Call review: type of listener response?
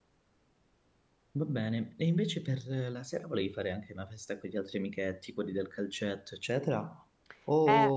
taking over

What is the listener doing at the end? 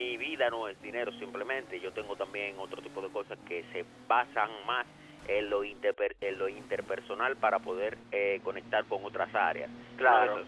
listening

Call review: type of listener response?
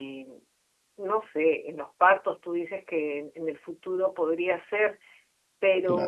listening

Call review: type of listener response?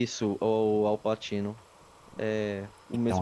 taking over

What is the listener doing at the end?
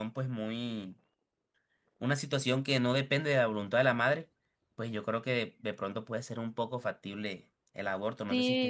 taking over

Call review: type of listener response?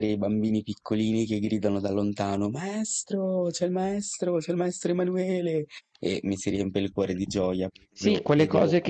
taking over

